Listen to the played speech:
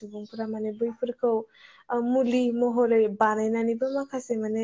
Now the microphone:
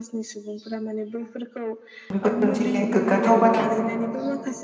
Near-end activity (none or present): present